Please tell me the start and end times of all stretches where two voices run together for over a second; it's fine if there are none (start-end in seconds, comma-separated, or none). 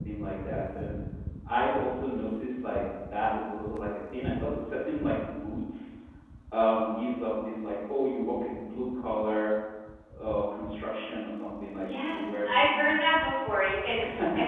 11.8-13.5